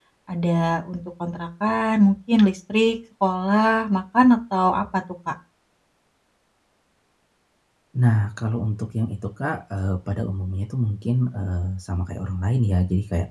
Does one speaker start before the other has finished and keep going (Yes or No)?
No